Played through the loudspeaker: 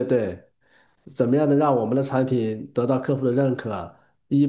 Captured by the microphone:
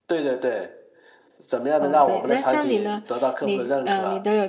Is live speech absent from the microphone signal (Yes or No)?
No